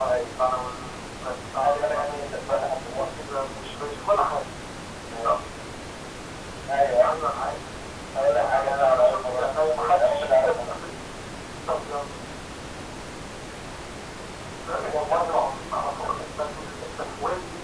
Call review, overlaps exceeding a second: present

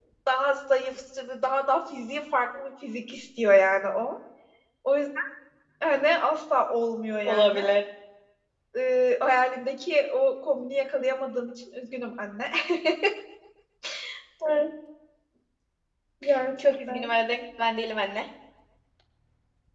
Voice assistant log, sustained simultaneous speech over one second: none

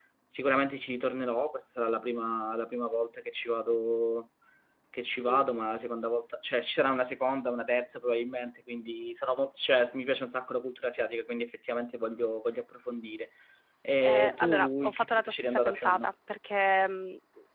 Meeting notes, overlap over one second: present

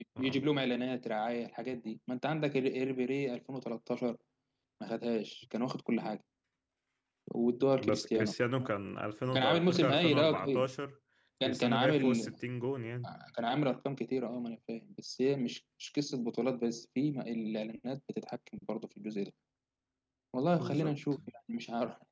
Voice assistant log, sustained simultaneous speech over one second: present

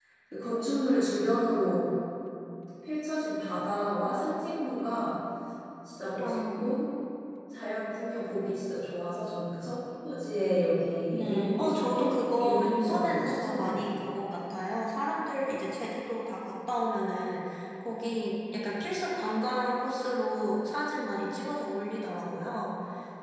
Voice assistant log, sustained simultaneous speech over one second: present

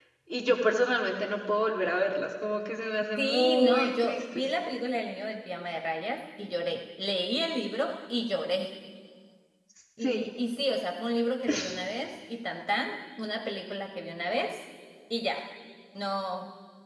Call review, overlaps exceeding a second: present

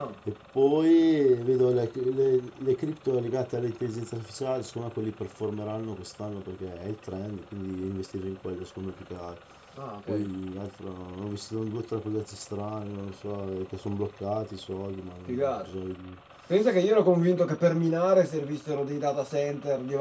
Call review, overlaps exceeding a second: none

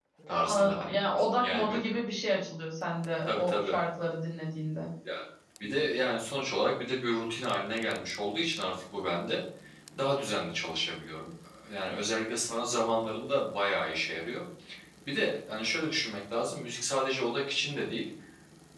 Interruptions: present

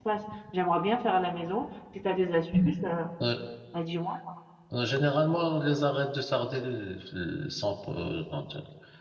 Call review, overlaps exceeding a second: none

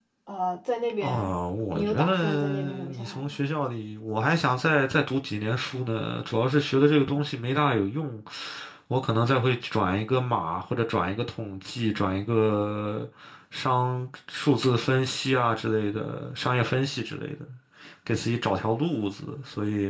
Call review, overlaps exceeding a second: present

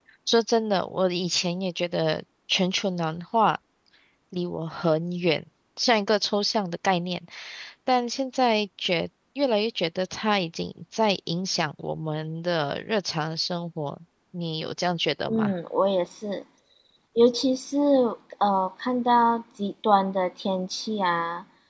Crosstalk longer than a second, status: none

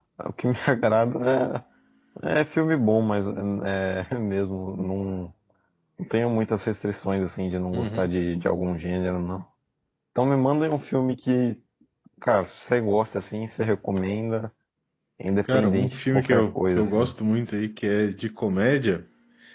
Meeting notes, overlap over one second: present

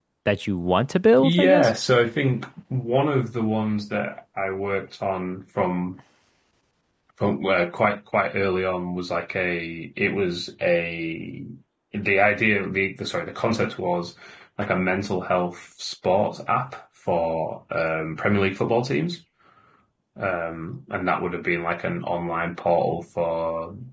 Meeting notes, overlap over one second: none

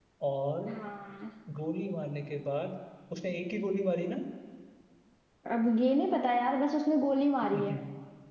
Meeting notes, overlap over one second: none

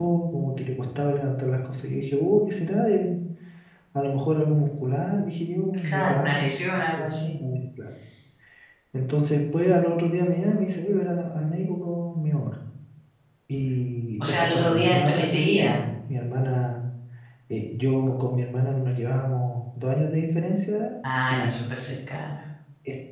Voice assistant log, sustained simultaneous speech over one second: present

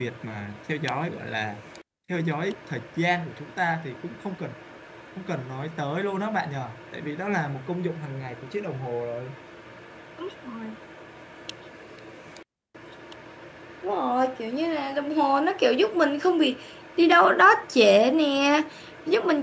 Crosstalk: none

